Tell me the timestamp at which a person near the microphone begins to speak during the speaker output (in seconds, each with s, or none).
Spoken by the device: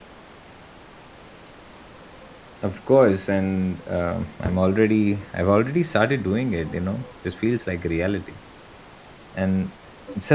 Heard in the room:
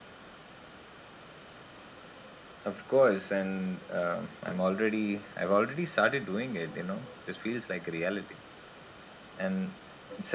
none